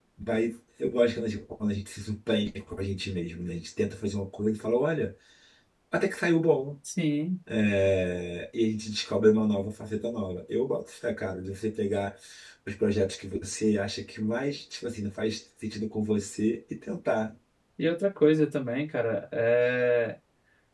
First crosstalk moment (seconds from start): none

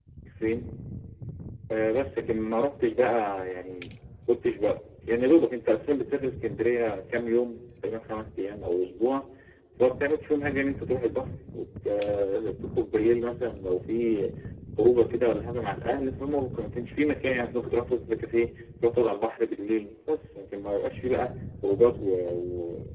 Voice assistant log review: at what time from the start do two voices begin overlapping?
none

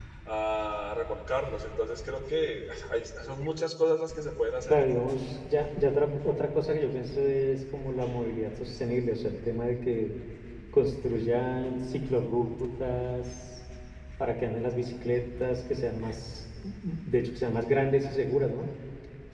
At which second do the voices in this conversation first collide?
none

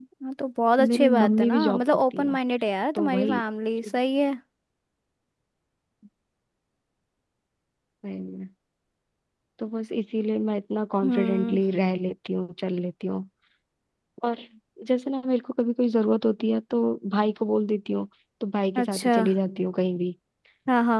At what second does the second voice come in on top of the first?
1 s

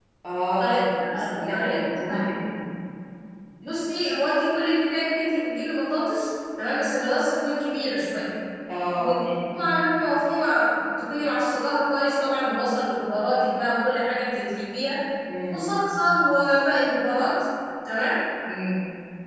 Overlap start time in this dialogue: 1 s

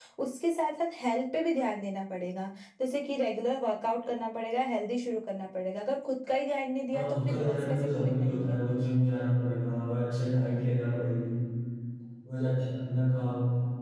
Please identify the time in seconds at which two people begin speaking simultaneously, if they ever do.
7 s

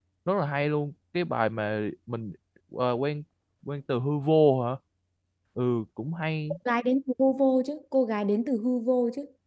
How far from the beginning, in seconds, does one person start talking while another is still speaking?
none

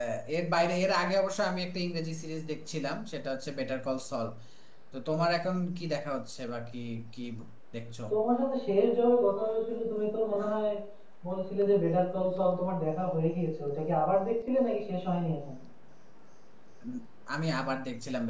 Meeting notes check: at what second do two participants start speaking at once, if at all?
none

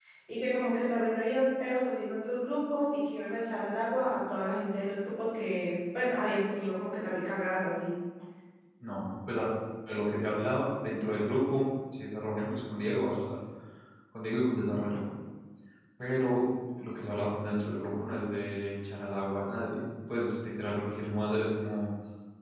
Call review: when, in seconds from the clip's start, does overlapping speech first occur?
none

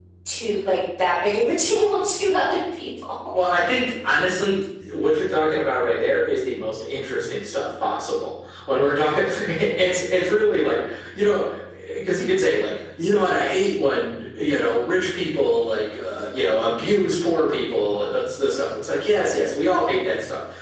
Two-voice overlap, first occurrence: none

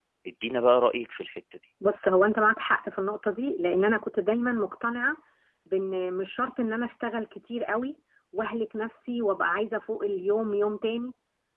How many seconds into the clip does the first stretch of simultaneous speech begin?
none

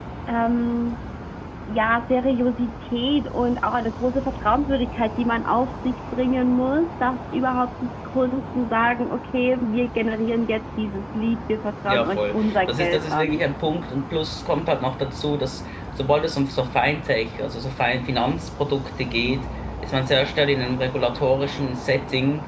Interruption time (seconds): 12 s

